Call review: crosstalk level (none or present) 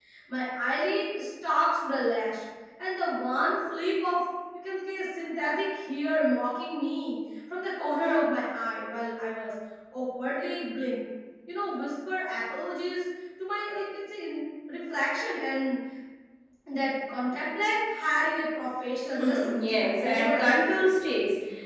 present